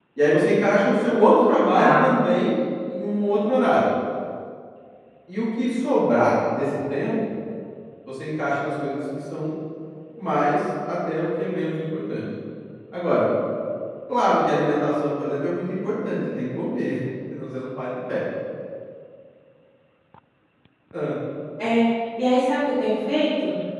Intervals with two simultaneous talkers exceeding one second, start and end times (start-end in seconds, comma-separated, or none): none